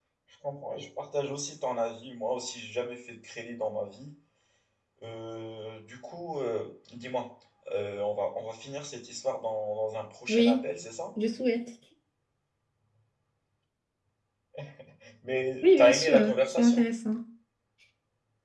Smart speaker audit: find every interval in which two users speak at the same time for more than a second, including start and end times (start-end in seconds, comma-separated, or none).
15.6-16.8